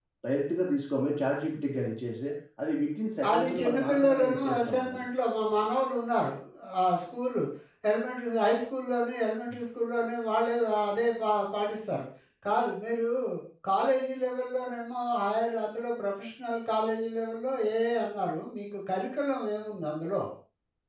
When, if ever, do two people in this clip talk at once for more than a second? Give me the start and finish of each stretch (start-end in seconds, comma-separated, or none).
3.3-5.0